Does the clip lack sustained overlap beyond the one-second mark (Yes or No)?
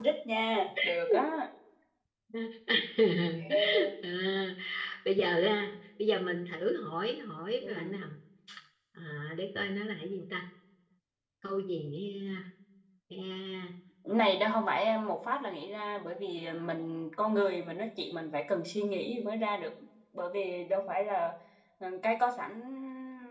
Yes